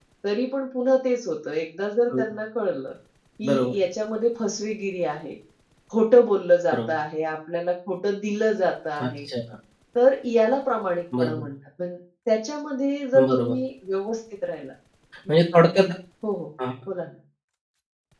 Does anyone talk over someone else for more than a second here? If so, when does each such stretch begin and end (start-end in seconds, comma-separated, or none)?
none